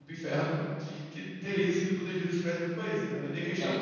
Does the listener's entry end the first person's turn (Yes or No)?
Yes